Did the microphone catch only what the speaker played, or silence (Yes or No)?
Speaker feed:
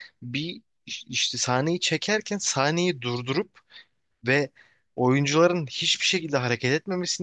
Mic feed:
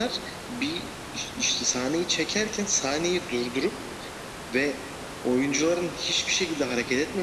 Yes